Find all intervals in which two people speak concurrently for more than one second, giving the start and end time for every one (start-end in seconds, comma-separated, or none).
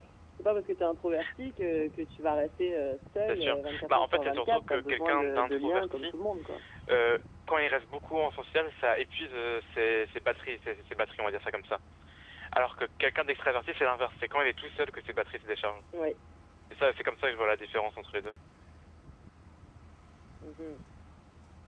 3.3-6.1